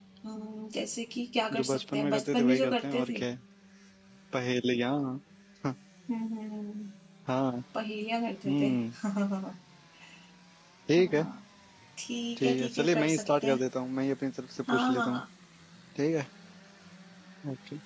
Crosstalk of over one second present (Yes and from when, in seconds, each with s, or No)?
Yes, from 1.6 s